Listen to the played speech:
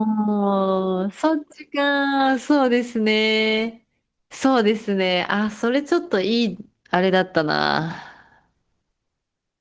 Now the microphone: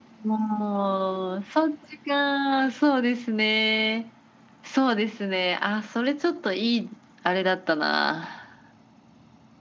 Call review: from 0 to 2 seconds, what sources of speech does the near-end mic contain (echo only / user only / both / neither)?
echo only